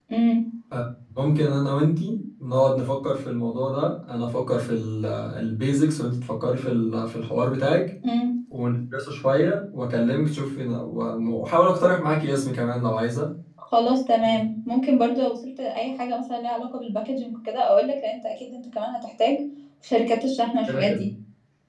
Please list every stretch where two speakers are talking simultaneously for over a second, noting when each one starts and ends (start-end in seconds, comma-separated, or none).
none